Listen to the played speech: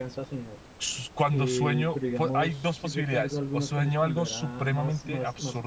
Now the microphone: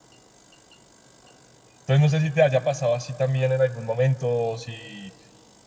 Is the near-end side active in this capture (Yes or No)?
Yes